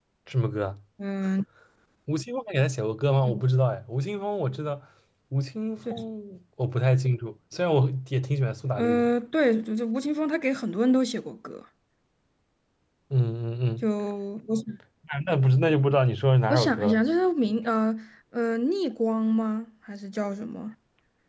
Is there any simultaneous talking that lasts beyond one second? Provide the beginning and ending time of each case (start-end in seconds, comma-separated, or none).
none